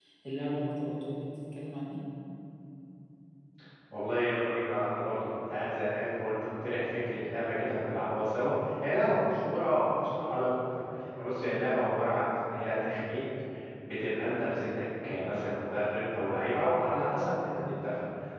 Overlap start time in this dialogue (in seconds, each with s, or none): none